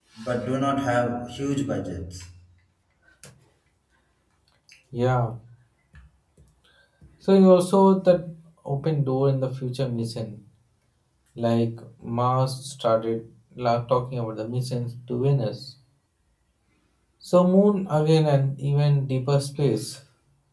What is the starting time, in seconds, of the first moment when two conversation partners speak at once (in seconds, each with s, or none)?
none